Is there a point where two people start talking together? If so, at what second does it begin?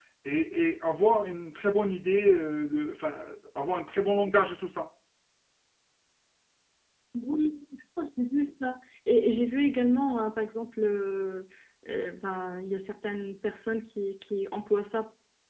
none

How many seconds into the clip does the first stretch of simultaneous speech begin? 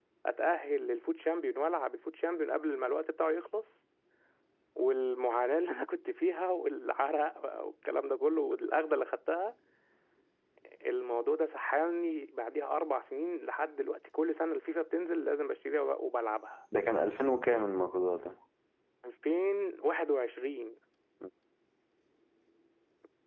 none

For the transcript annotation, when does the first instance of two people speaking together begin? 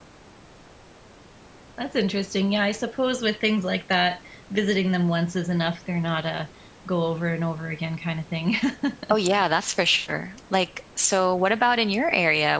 none

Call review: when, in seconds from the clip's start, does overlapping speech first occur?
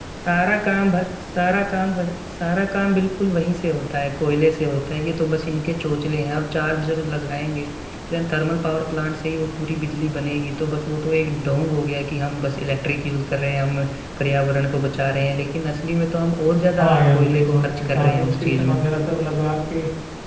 16.8 s

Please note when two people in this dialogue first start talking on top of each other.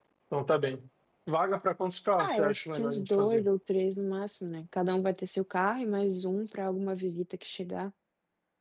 2.2 s

